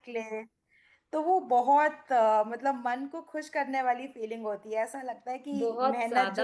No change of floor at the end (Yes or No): No